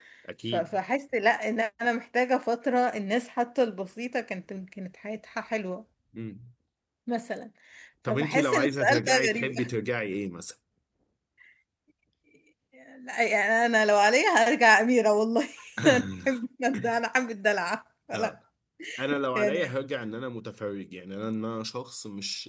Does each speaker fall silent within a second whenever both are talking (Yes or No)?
No